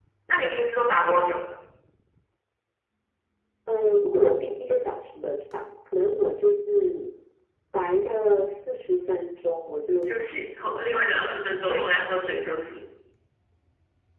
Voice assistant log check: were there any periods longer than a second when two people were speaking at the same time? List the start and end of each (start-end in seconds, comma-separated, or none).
10.0-11.2